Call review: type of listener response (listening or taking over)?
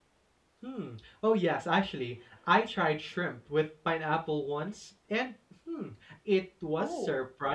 listening